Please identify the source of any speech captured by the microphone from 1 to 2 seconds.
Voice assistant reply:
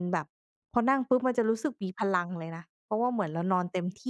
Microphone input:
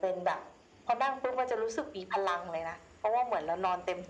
echo only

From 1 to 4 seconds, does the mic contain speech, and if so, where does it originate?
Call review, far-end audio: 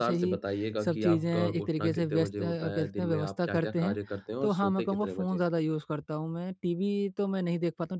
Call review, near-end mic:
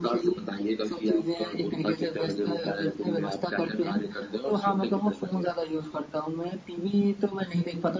echo only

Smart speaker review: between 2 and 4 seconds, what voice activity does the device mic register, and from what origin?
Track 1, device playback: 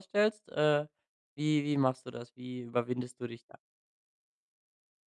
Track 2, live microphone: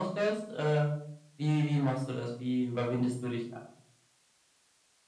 echo only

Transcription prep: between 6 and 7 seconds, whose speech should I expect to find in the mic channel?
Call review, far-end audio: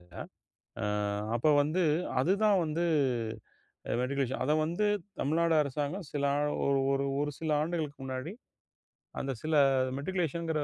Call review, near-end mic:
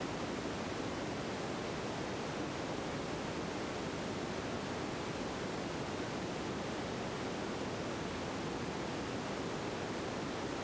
neither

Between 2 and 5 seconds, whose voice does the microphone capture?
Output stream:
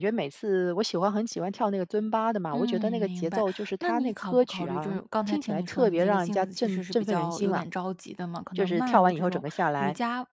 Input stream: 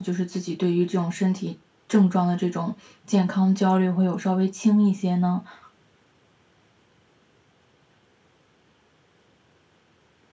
user only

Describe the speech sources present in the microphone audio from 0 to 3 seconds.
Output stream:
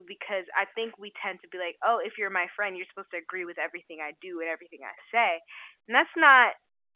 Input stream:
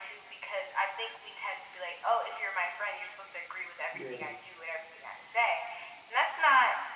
echo only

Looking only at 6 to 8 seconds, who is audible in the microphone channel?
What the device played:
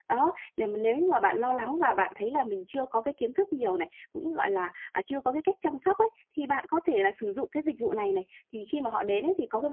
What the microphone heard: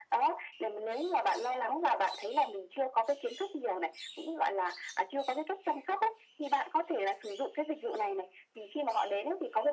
echo only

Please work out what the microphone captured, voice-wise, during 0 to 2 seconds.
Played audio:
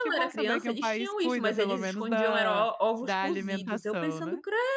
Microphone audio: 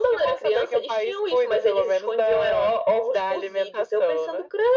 echo only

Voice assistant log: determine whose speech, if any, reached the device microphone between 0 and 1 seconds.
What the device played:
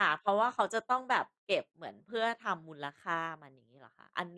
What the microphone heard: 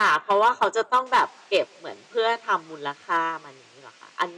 echo only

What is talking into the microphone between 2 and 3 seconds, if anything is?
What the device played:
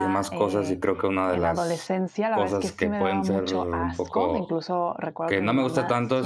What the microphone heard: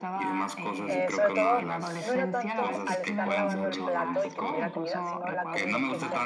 both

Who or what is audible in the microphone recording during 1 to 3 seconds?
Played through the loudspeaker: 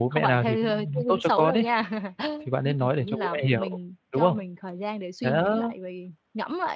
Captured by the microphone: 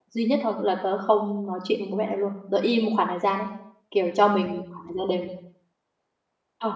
user only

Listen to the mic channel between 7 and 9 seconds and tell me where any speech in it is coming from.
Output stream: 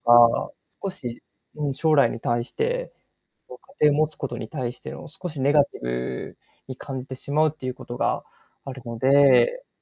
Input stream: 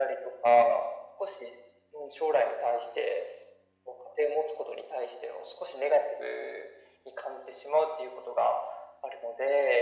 echo only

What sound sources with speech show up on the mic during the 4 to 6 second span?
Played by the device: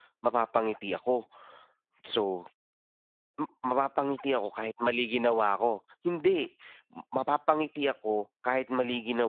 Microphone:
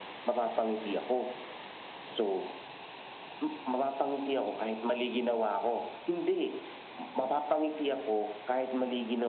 echo only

